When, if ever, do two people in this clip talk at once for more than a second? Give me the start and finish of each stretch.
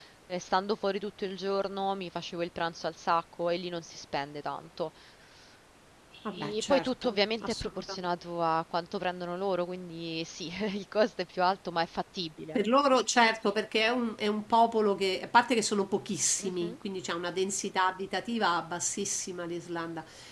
6.3-8.1

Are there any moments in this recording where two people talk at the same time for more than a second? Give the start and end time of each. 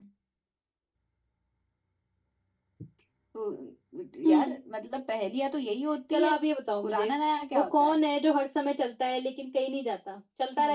none

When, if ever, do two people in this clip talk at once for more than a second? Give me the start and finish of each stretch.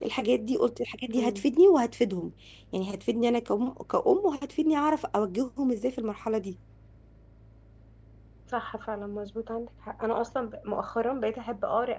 none

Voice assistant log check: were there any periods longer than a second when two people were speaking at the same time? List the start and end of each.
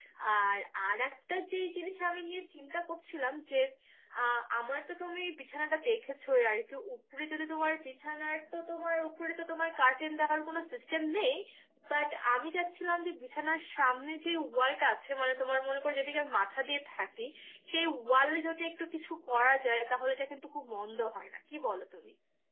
none

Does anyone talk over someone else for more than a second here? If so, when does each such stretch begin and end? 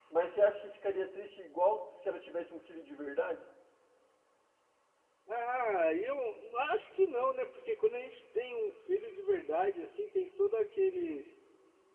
none

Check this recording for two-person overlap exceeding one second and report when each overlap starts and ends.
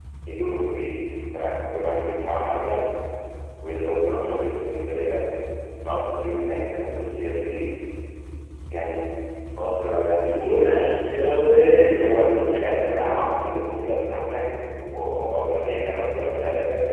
none

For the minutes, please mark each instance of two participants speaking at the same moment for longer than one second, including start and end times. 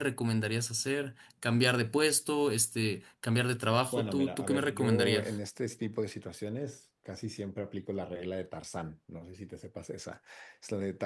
3.9-5.4

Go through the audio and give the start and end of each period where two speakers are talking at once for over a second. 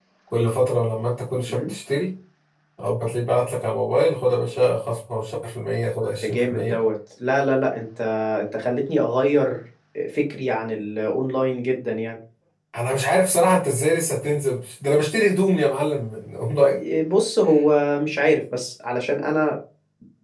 none

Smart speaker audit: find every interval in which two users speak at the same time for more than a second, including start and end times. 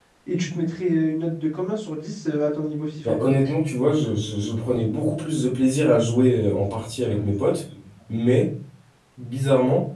none

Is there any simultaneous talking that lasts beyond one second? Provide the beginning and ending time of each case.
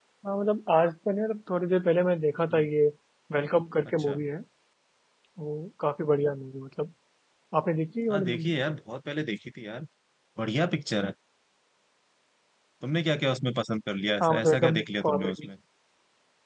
14.2-15.5

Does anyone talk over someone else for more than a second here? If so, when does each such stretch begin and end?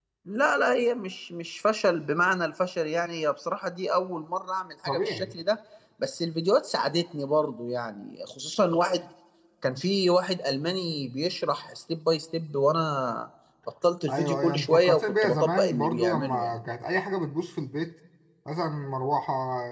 14.1-16.6

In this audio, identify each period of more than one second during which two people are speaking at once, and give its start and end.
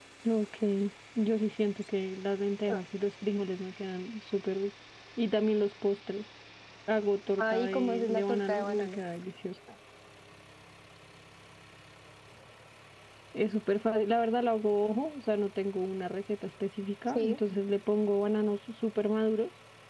7.4-9.0

